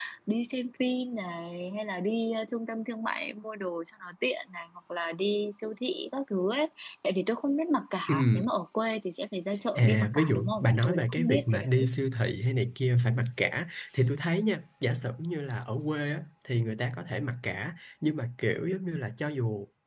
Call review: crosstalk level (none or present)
present